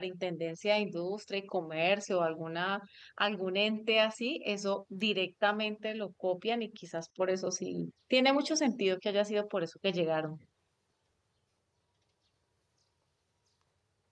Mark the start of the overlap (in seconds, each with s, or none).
none